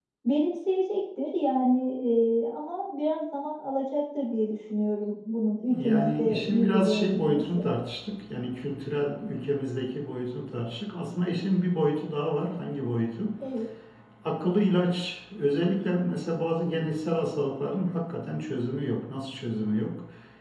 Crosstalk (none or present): present